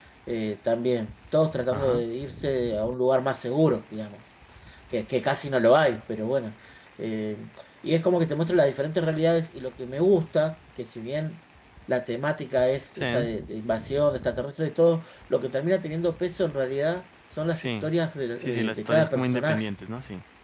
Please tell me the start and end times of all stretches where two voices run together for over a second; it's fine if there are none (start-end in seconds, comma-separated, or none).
18.4-19.6